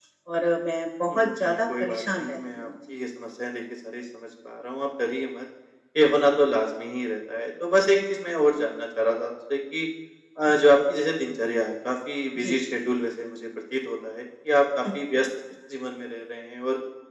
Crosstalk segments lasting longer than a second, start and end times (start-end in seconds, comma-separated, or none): 1.1-2.7